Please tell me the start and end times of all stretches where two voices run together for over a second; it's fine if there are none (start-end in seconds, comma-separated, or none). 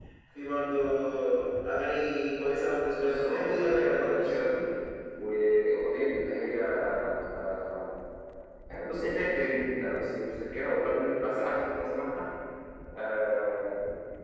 3.0-4.4